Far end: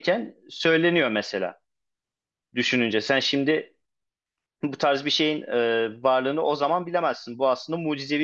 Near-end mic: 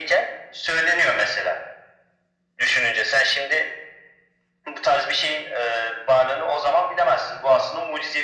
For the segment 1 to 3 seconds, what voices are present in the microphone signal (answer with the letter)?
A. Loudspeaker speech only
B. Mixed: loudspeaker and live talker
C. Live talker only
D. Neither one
A